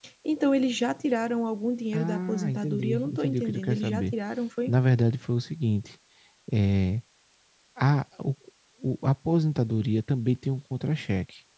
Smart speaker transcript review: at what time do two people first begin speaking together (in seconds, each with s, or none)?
1.9 s